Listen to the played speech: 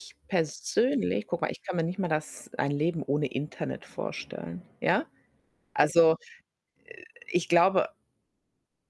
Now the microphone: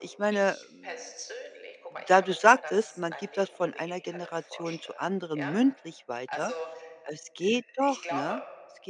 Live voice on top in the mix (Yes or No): Yes